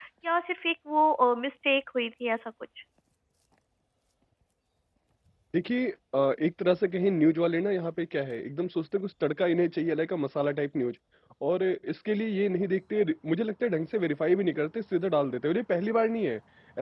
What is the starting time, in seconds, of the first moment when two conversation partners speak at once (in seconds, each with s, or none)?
none